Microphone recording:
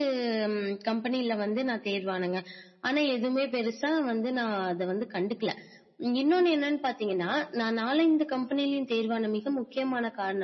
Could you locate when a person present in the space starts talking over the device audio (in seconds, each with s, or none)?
none